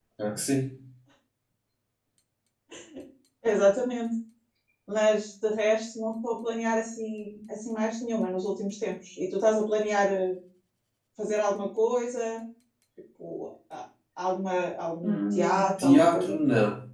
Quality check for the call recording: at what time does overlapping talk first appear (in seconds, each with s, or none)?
15.0 s